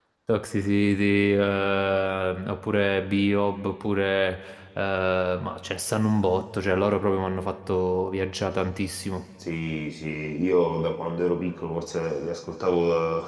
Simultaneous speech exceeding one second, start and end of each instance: none

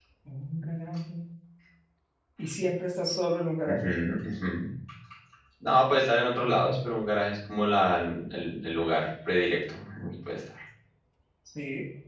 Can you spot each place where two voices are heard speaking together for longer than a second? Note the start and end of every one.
none

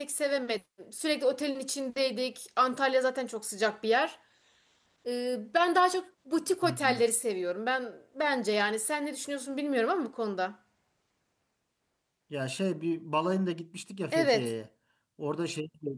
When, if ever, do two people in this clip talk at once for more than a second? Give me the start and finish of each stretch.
none

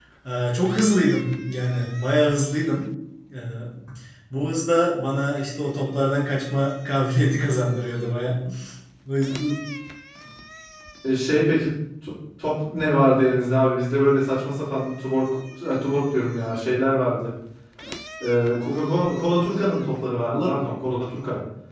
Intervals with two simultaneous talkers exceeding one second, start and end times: none

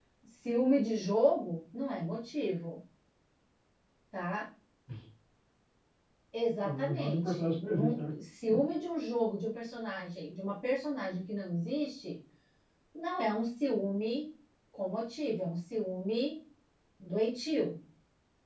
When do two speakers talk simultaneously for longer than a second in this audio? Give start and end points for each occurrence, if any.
6.6-8.1

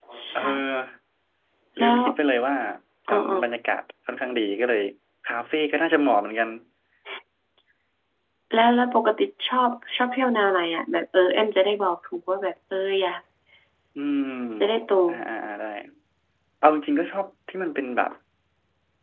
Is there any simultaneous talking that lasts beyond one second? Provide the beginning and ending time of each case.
none

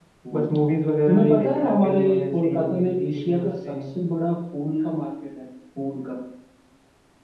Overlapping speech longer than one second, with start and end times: 1.1-3.9

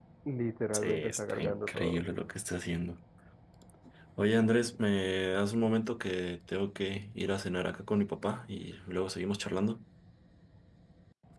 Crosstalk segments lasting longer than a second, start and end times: 0.7-2.0

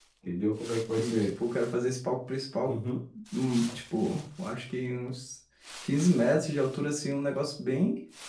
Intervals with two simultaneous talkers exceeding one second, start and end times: none

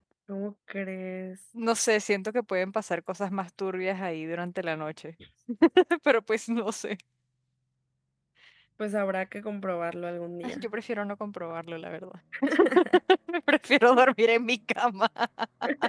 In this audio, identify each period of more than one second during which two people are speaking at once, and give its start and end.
none

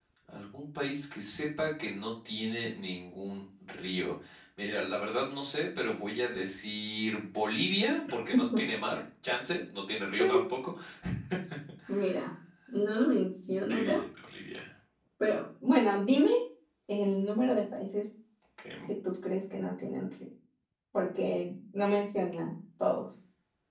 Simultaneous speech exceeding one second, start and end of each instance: none

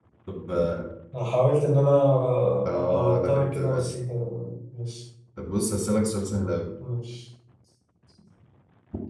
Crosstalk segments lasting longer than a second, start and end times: 2.7-3.9

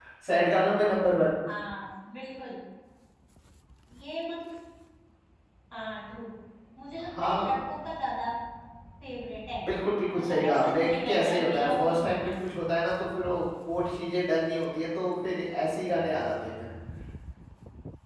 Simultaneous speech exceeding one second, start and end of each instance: 10.1-12.3

